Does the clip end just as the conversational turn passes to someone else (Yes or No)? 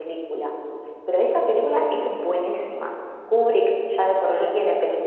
No